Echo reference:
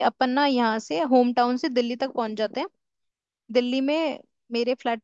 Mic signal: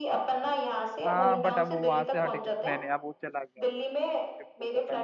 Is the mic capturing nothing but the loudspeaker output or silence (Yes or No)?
No